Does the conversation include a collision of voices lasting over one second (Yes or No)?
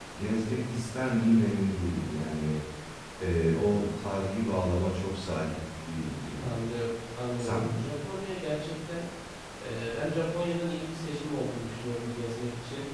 No